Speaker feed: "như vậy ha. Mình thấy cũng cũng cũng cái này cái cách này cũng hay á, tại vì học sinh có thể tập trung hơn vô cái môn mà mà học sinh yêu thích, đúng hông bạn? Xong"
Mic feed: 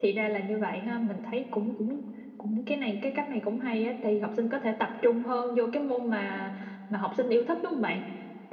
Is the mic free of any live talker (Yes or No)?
Yes